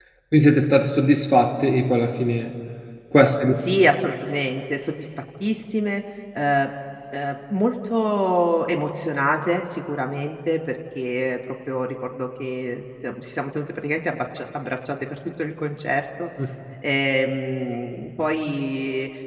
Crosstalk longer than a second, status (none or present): none